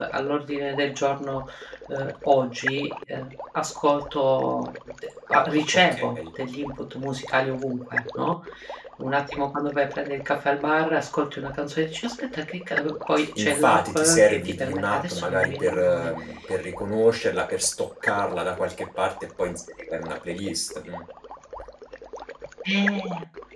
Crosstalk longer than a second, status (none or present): present